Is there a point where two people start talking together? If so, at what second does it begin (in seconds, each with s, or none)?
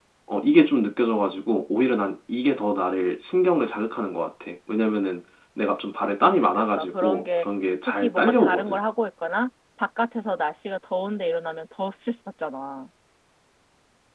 6.2 s